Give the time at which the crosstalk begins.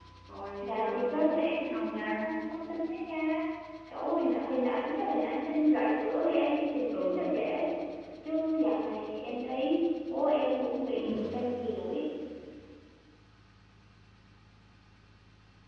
0.6 s

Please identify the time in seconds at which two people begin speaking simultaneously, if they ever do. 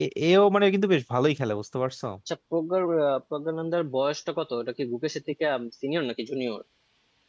none

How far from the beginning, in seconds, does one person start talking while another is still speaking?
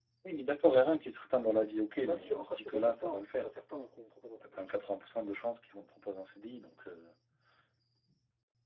1.9 s

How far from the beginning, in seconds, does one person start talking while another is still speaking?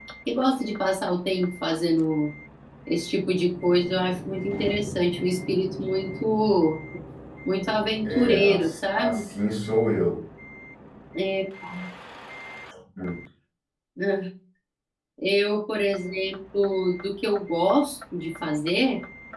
8.0 s

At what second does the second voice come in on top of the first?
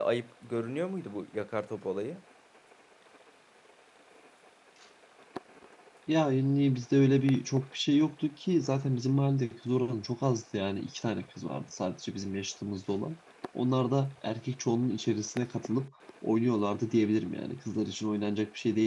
none

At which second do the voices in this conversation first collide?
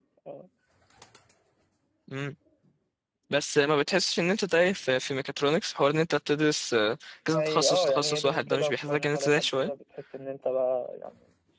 7.3 s

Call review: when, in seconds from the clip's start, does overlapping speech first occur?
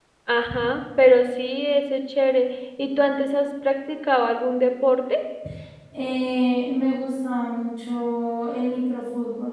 none

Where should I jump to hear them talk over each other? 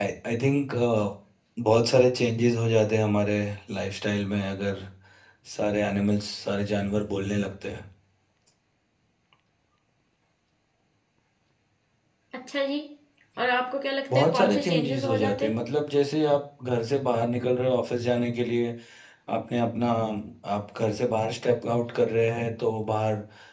14.1 s

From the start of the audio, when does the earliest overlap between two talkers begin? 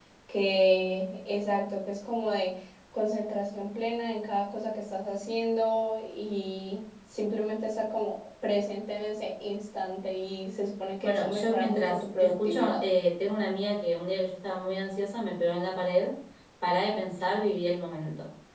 11.0 s

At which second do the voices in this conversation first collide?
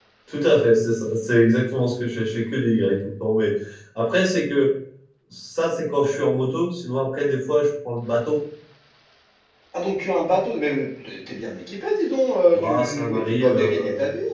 12.5 s

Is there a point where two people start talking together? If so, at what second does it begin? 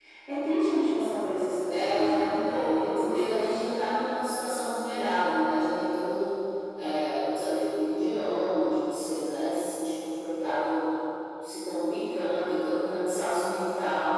1.7 s

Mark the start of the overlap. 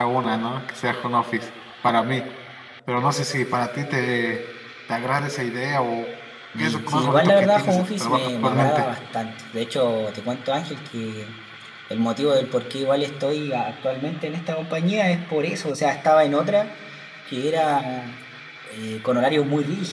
6.6 s

